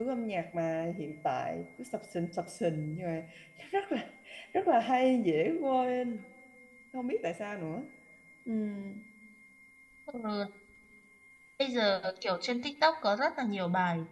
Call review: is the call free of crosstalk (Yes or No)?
Yes